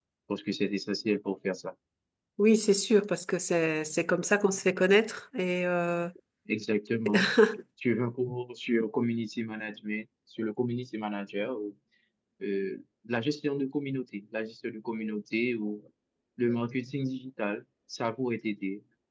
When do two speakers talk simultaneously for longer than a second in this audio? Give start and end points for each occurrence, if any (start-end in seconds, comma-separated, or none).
none